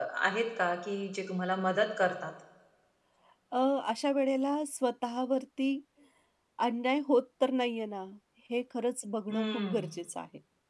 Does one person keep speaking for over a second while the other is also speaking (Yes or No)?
No